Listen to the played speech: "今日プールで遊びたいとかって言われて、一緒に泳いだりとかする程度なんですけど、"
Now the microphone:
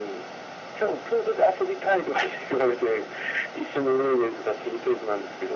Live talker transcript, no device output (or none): none